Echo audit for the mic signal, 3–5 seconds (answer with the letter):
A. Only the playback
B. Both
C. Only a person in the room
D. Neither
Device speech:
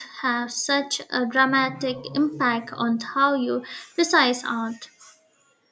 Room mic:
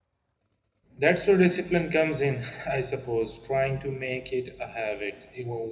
C